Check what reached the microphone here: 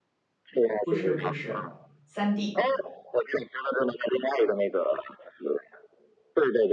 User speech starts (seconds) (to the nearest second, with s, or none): 1 s